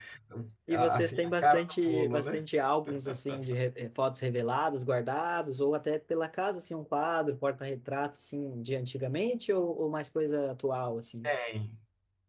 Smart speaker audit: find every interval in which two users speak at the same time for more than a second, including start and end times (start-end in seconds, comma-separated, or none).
0.7-2.4